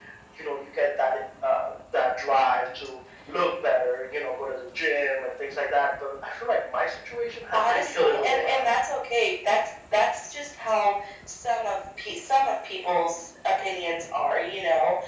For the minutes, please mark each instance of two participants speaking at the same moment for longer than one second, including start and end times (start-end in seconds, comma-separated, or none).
7.5-8.8